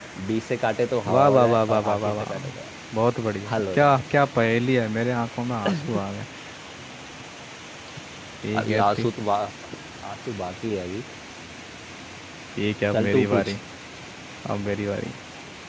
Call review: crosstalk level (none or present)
present